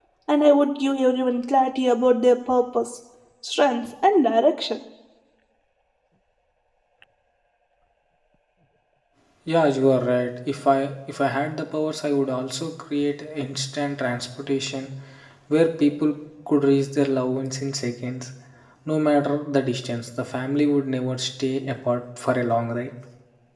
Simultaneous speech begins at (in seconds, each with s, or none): none